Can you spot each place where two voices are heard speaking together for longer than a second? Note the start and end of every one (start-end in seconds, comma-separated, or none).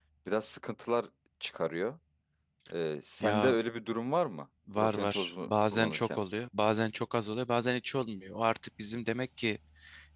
4.8-6.2